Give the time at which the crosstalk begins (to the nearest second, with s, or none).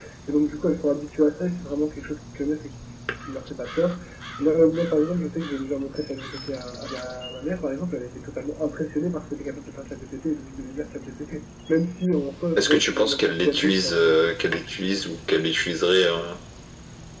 13 s